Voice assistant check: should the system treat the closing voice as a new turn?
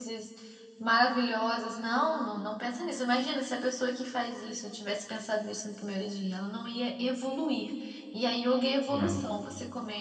No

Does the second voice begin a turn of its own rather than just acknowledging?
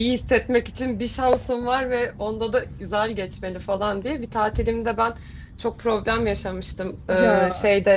No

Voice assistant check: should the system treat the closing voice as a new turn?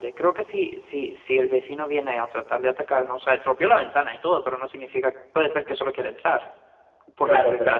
Yes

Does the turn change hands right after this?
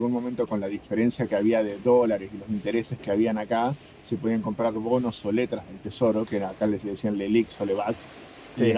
No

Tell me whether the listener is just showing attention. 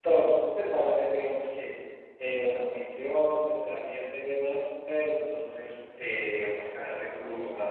Yes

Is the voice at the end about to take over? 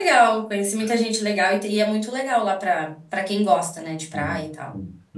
Yes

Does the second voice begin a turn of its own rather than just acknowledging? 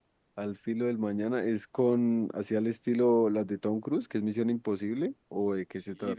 Yes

